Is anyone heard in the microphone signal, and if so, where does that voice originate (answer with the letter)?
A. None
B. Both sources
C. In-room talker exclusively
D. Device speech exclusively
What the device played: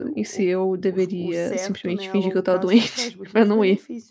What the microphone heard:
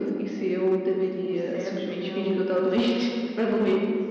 D